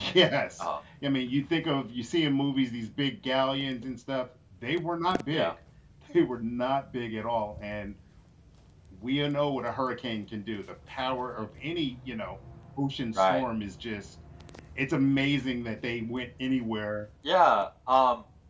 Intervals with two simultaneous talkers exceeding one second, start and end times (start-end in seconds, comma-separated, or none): none